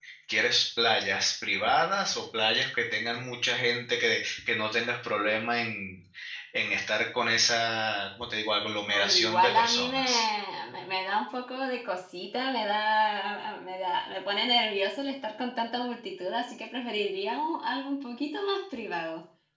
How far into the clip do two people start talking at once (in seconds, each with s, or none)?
8.9 s